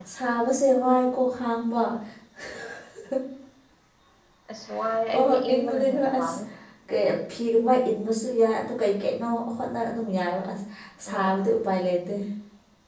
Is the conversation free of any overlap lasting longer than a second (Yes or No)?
No